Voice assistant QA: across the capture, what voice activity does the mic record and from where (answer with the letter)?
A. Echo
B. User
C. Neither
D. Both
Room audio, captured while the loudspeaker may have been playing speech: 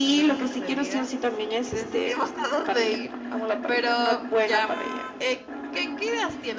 D